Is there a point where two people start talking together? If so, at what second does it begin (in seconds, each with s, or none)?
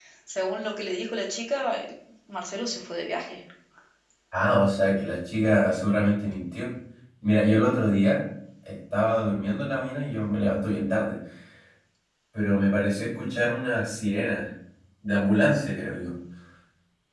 none